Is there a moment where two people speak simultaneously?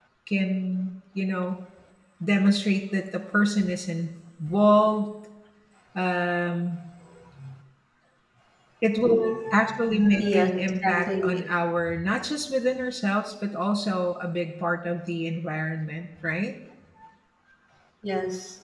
Yes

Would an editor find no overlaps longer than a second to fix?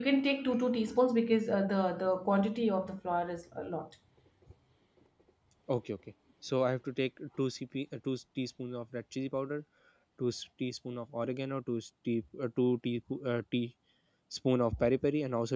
Yes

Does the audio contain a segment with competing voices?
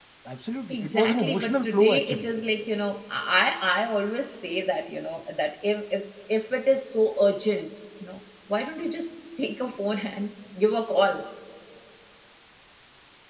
Yes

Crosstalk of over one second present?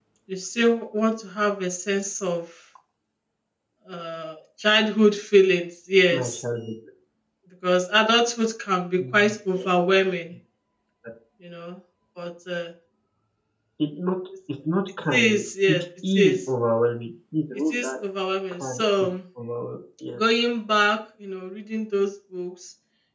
Yes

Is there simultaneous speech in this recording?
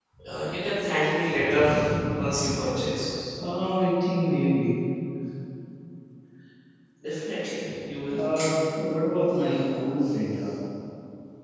No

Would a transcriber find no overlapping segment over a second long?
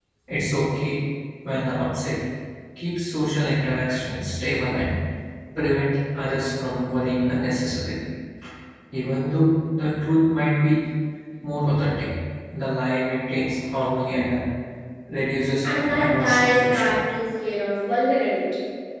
No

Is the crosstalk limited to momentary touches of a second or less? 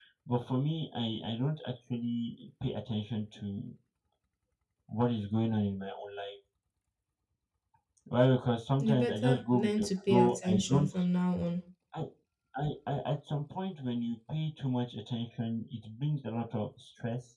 No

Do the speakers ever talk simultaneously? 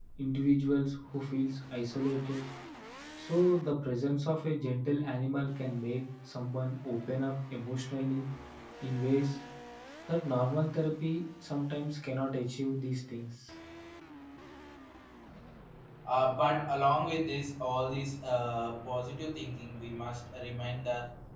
No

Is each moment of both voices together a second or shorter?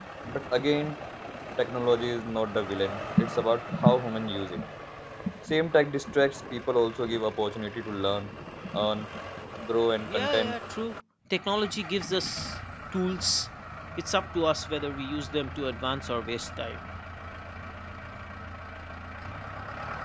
Yes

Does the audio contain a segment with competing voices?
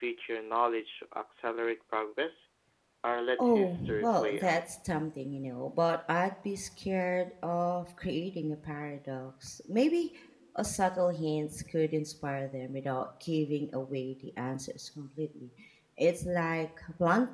Yes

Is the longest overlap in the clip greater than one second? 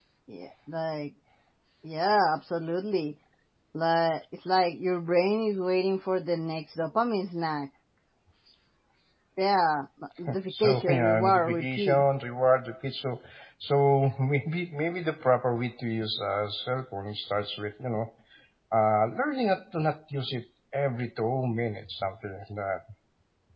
Yes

